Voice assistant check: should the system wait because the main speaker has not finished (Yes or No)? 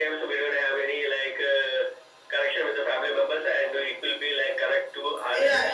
No